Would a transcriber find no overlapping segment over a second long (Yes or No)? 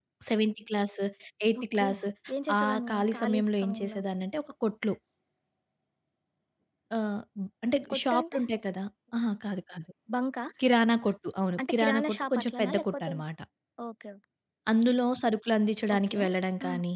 No